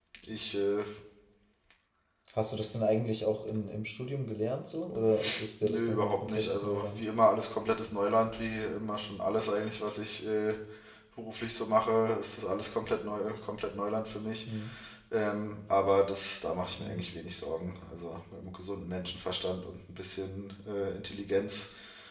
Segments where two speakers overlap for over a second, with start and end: 5.6-7.0

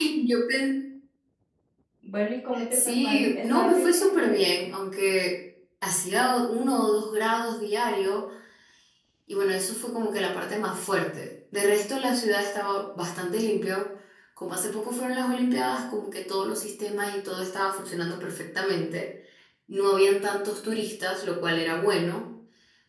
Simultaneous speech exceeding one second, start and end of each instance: 2.7-4.4

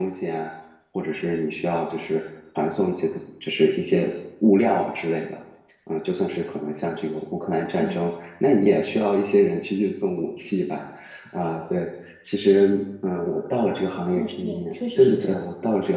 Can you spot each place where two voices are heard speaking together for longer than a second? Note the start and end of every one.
14.1-15.4

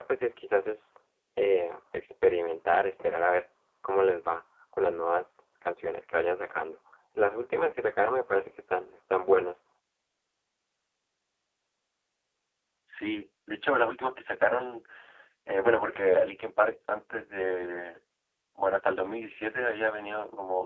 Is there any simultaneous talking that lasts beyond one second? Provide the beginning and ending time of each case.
none

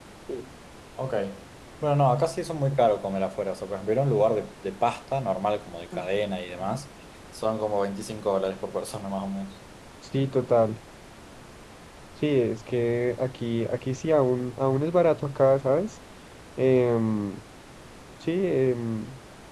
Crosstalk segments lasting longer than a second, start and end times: none

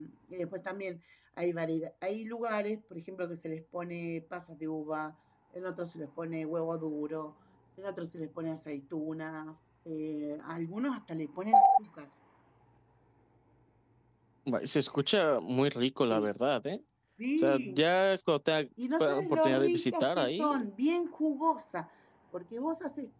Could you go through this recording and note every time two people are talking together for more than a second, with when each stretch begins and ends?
19.0-20.7

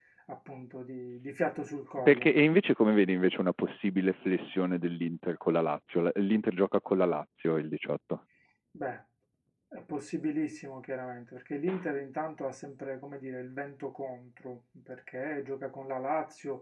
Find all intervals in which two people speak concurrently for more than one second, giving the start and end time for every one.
none

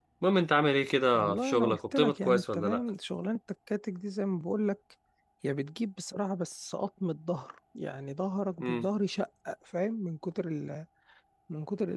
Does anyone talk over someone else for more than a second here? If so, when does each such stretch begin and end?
1.1-2.8

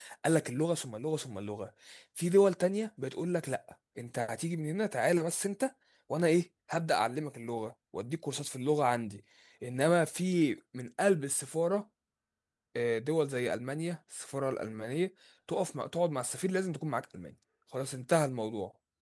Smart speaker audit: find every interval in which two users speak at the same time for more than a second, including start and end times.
none

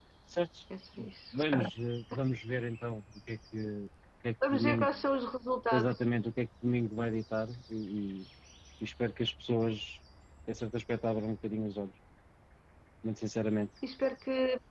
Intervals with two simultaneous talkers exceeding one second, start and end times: none

